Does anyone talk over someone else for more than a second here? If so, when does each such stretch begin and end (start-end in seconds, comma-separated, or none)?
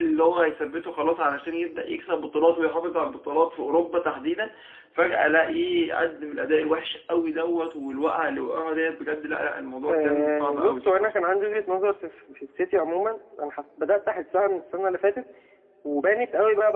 9.9-11.1